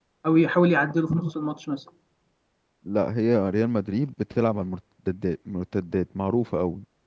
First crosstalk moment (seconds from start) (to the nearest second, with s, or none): none